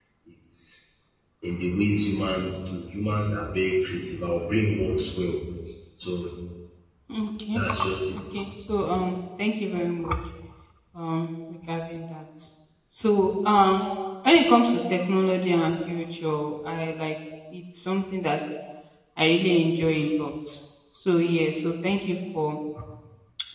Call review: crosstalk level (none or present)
none